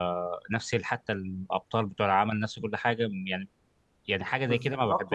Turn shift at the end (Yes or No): Yes